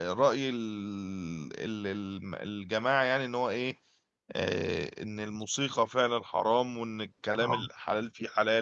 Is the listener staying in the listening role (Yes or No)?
Yes